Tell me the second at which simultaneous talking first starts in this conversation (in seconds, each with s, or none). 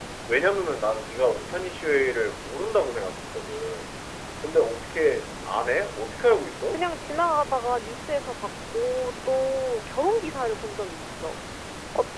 none